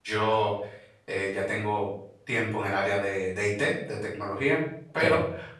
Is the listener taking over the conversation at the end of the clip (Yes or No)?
No